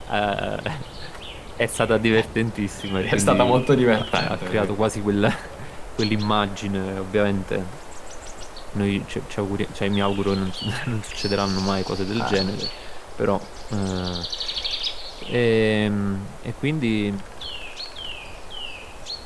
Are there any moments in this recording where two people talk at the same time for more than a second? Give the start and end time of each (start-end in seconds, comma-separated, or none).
3.0-4.8